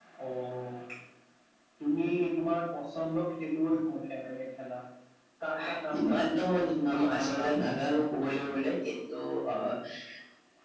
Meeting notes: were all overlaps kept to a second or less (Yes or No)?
No